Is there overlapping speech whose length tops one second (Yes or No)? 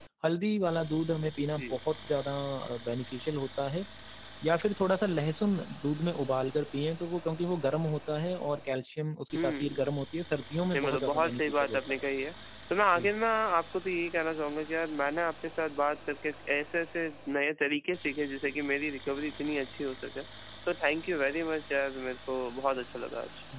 Yes